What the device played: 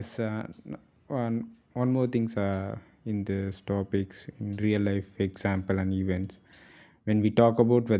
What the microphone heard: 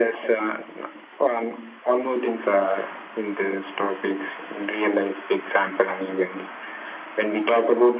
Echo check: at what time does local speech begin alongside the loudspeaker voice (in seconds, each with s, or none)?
none